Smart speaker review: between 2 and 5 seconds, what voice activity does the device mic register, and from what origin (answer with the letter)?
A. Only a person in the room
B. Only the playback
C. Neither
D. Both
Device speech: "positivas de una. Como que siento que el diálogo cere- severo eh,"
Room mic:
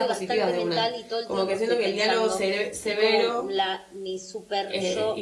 D